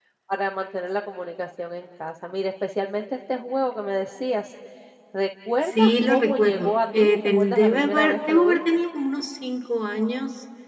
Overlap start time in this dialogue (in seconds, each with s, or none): 5.6 s